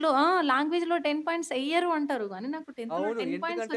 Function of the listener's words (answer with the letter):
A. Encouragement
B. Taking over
B